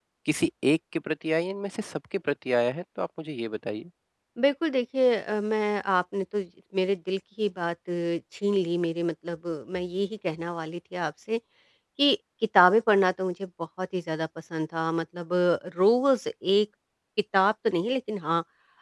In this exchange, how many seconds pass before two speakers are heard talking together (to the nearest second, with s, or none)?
none